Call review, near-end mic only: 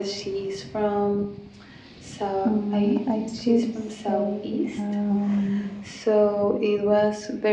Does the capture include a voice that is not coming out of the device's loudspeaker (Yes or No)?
Yes